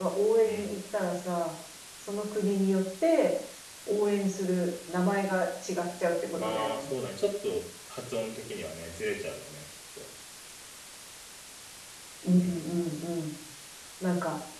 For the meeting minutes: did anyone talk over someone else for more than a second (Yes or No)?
No